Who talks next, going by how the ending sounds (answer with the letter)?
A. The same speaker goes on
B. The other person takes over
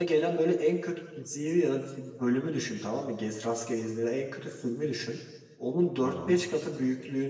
A